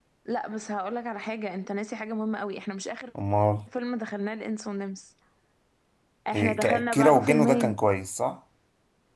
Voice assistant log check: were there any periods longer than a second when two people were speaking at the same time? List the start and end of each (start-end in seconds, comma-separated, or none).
6.3-7.8